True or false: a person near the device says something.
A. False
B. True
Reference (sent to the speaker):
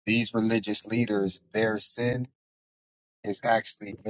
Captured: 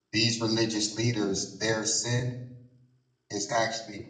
A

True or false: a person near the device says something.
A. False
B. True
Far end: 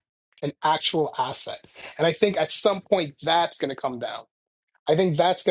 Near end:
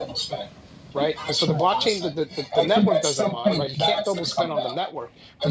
B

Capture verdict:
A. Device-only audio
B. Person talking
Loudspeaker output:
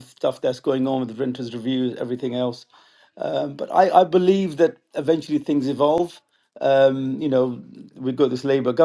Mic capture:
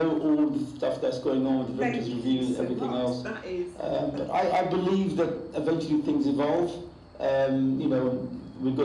B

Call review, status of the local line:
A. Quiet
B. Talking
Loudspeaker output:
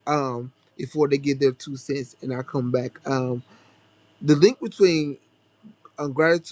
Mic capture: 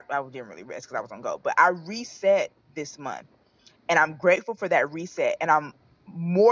B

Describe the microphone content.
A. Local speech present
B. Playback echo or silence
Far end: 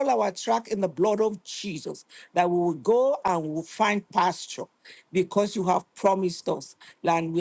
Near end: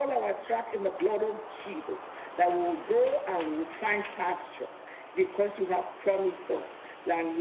B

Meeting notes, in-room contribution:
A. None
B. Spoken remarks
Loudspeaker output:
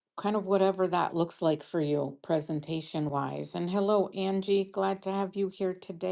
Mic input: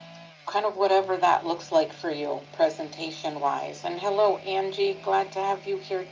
A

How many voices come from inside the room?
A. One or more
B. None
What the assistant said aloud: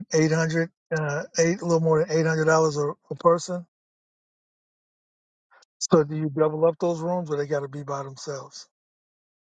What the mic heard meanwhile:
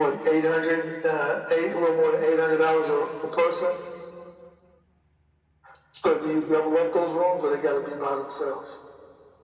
B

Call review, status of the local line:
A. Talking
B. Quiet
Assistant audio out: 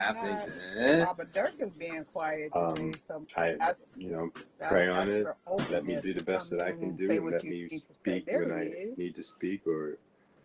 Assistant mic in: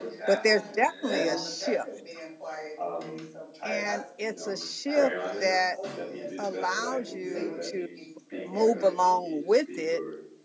A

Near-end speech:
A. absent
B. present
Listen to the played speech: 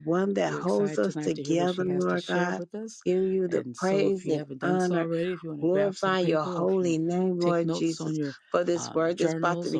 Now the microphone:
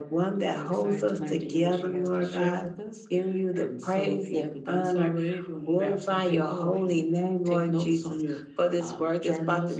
A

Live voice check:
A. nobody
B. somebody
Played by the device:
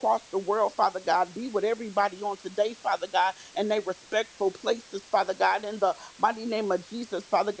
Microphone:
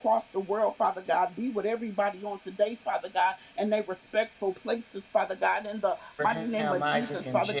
B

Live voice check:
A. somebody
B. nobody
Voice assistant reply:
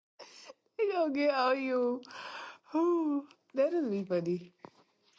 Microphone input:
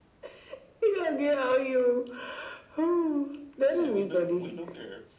A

